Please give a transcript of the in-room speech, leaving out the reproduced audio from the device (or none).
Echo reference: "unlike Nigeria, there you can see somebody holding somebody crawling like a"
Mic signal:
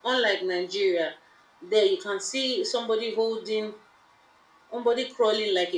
none